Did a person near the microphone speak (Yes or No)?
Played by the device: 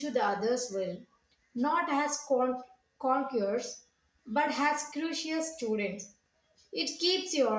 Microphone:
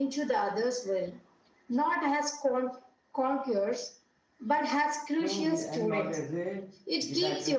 Yes